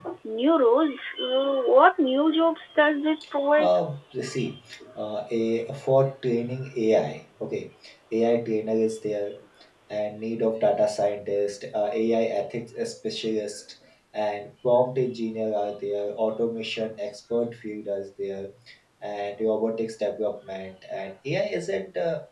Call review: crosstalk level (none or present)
none